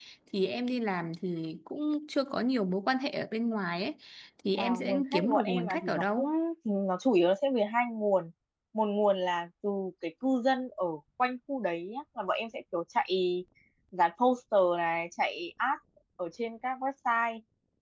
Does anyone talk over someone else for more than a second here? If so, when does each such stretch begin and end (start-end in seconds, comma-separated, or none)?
4.6-6.3